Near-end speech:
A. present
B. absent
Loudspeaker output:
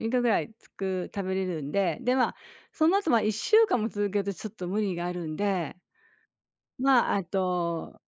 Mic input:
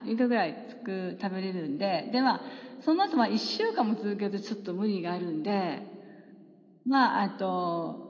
B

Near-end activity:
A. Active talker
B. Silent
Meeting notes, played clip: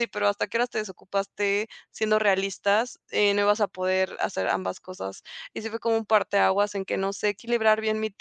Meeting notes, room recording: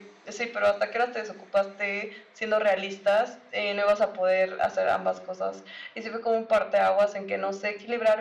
B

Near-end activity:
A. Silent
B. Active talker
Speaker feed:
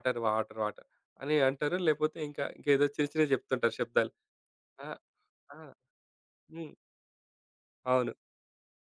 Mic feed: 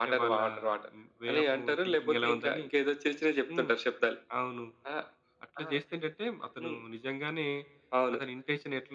B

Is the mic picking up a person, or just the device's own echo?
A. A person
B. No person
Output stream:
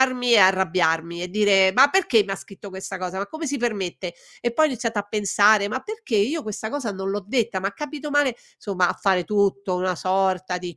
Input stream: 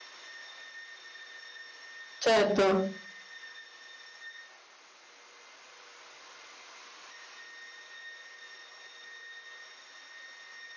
A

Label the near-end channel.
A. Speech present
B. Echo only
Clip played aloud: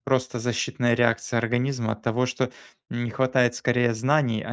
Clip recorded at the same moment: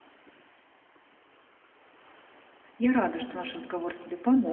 A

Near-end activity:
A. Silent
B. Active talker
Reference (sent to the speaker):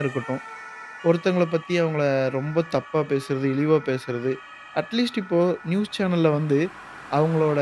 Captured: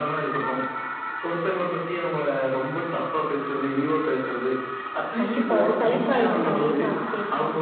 B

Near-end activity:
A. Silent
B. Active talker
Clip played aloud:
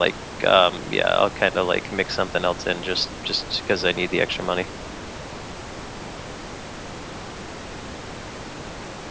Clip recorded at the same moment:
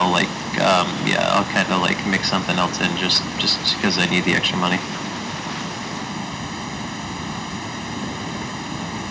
A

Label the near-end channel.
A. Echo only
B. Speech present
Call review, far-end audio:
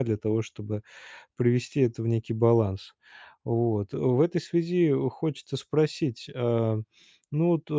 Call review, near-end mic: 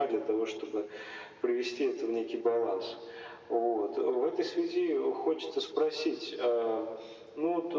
A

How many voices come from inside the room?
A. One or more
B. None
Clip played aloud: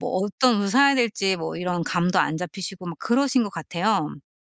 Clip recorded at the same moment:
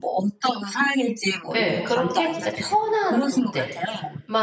A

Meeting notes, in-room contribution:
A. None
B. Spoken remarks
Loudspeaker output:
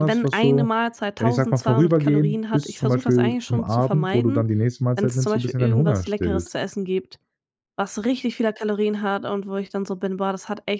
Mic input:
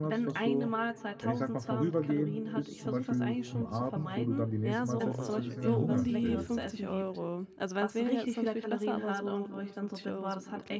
B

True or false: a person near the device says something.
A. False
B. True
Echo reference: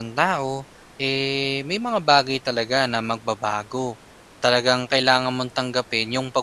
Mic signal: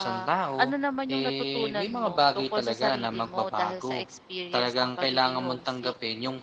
B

